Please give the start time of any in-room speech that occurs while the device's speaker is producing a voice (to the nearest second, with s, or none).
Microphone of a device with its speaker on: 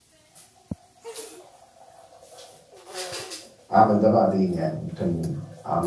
4 s